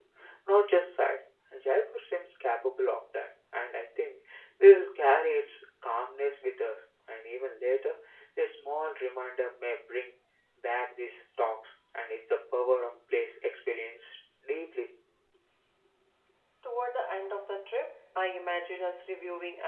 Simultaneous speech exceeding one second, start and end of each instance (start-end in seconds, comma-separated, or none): none